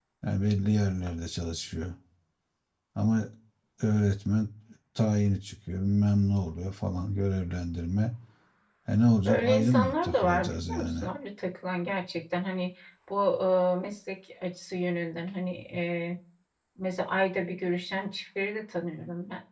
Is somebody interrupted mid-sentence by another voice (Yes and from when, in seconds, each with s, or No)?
Yes, from 9.2 s